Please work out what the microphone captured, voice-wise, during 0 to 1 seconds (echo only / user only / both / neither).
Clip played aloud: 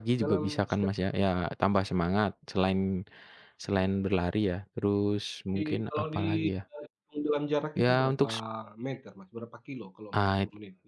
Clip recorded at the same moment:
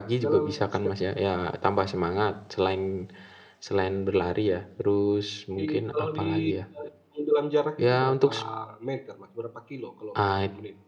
echo only